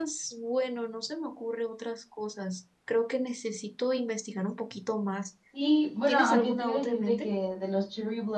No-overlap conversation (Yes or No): No